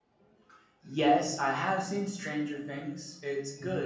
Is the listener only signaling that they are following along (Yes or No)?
Yes